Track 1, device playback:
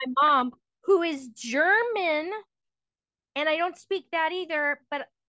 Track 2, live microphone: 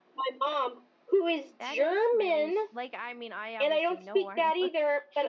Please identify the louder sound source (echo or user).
echo